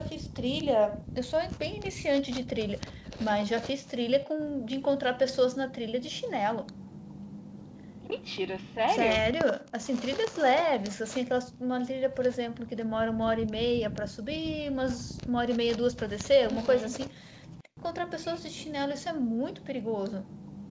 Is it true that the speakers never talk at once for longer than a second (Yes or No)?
Yes